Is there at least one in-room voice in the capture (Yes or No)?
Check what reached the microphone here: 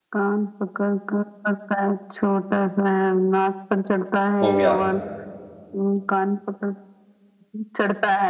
Yes